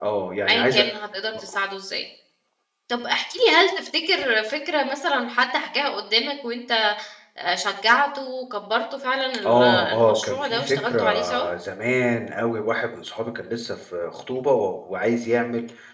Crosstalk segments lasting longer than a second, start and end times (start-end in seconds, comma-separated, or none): 9.4-11.4